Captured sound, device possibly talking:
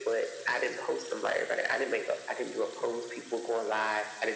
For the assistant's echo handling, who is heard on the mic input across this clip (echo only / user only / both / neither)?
echo only